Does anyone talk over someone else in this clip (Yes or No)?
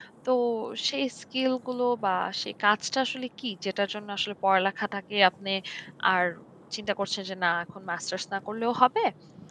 No